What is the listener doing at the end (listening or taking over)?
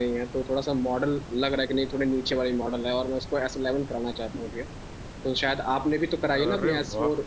listening